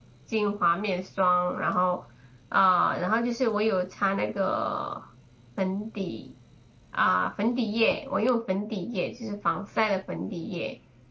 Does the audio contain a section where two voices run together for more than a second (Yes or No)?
No